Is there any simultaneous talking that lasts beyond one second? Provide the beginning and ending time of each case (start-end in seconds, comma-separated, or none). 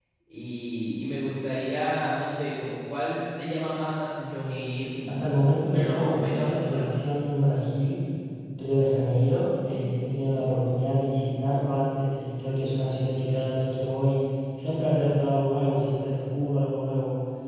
5.1-6.9